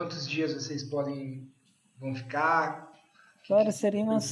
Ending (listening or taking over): taking over